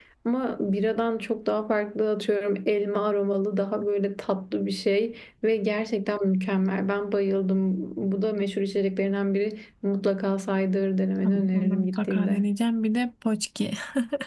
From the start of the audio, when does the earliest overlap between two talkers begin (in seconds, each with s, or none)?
11.2 s